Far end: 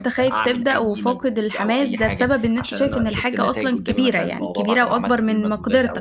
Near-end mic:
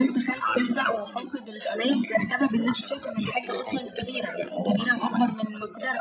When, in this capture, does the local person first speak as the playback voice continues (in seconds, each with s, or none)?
none